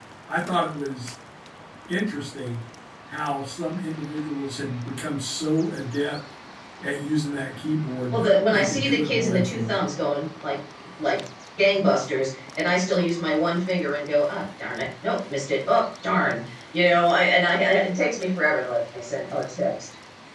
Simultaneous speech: Yes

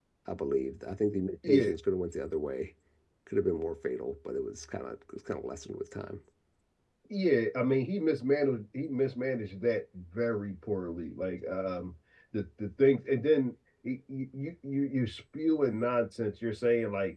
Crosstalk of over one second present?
No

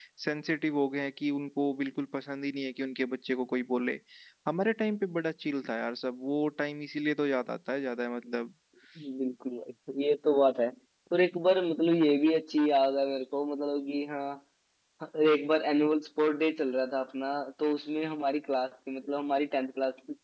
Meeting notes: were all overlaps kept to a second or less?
Yes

